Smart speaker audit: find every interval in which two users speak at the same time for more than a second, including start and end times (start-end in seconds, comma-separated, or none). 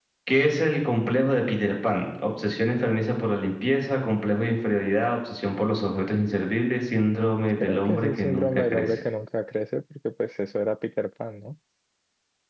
7.6-9.0